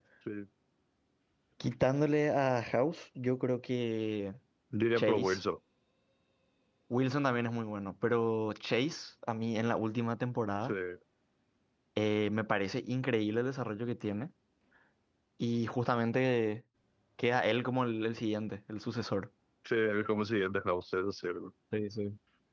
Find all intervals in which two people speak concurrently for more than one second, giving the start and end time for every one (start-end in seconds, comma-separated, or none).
none